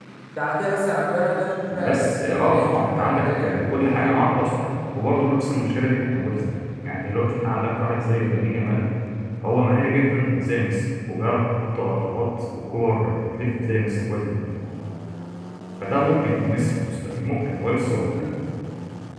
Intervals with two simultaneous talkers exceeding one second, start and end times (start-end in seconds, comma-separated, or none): 1.7-4.1